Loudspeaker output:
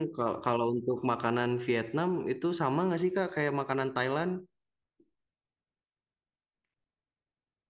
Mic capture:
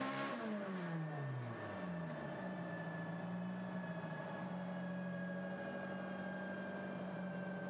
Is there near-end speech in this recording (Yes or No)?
No